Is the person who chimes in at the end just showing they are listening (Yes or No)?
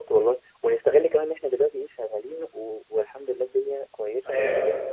No